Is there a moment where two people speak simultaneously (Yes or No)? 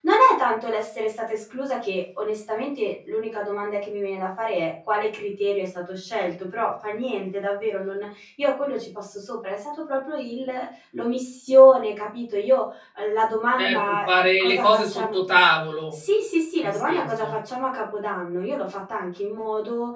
Yes